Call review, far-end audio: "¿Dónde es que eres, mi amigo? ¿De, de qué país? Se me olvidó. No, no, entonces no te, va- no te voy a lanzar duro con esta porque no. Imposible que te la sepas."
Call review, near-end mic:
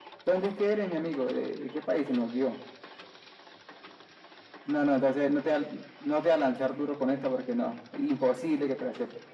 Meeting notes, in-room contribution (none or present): none